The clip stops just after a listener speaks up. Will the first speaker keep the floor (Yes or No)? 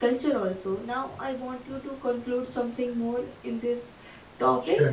No